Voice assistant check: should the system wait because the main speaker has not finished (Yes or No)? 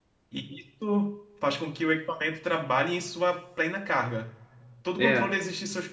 Yes